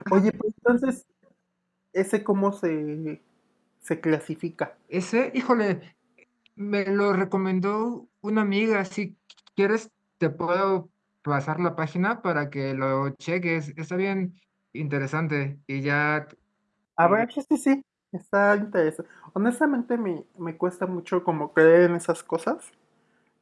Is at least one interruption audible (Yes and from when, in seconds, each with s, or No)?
No